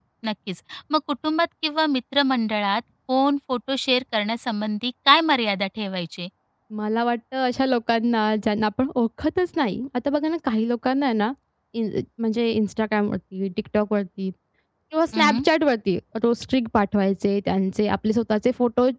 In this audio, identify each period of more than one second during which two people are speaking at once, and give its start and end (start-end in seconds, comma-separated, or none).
none